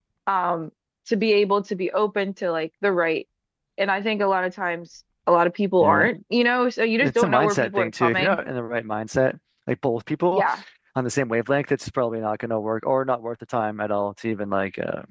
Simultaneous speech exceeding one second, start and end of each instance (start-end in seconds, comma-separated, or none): 7.0-8.4